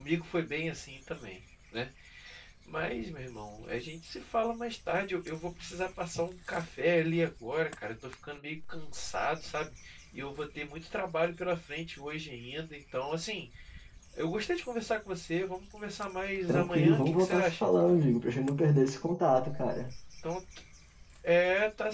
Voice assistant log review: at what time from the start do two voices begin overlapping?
16.5 s

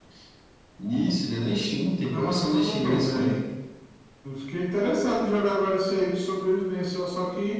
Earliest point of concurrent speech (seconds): 2.1 s

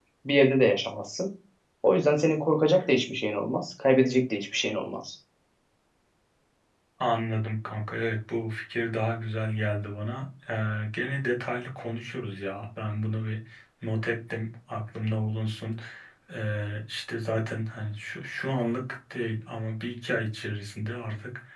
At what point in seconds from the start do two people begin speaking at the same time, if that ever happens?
none

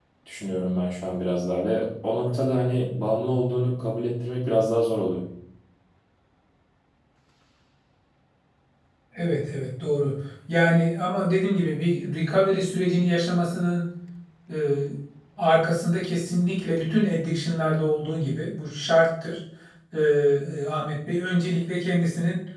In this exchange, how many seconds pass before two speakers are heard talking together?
none

